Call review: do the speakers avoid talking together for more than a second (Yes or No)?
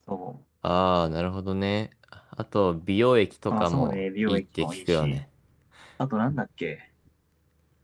No